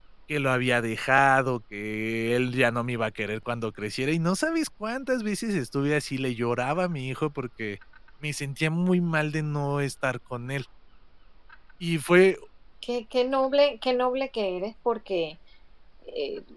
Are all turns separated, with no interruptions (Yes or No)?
Yes